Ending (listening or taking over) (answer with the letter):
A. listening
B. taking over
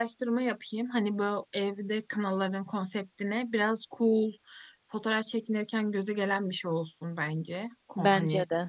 A